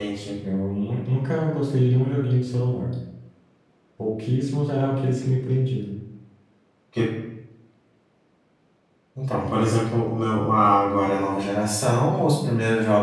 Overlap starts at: none

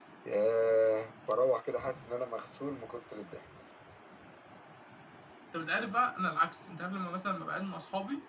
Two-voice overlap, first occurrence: none

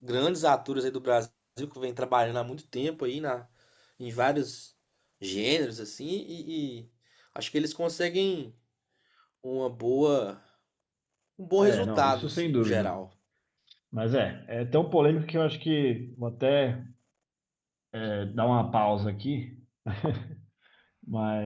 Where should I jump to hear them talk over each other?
11.6 s

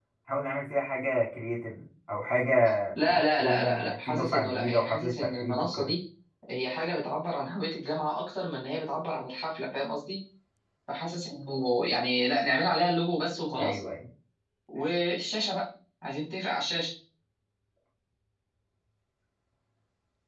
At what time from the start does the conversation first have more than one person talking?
3.0 s

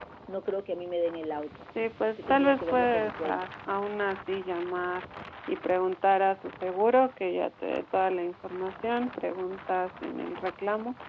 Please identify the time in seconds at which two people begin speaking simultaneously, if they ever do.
2.2 s

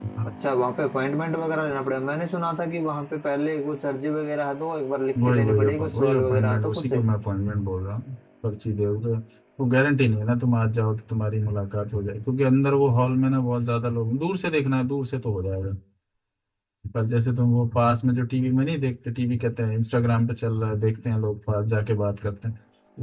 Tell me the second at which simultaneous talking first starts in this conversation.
5.2 s

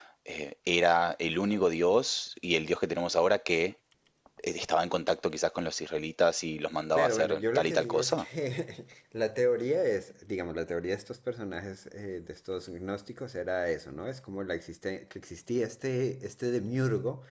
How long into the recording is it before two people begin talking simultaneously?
7.0 s

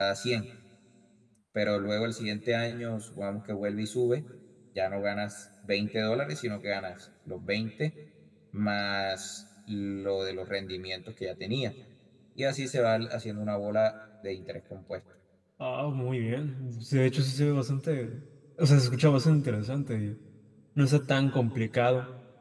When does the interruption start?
none

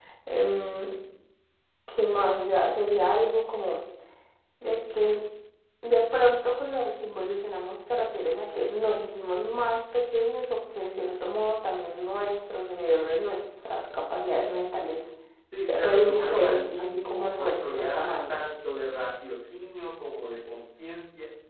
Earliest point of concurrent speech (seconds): 15.7 s

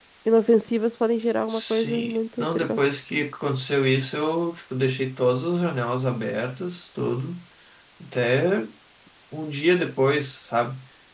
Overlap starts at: 1.5 s

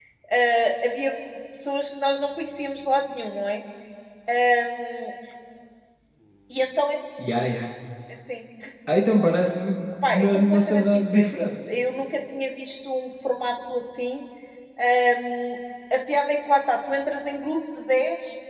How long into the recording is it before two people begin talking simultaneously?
10.0 s

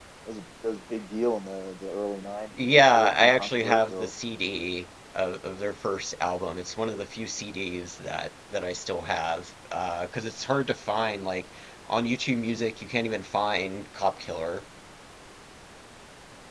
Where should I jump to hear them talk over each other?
2.6 s

